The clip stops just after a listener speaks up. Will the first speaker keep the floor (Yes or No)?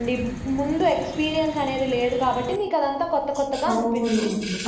No